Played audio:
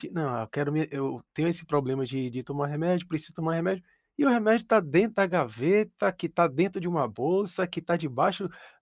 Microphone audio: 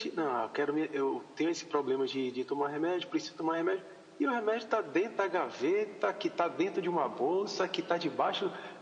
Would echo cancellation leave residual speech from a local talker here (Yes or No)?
No